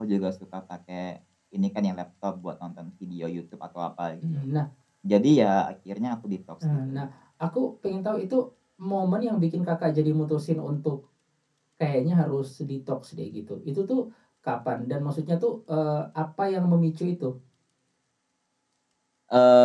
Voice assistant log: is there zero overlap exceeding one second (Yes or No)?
Yes